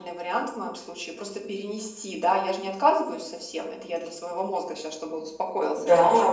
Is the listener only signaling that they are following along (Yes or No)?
No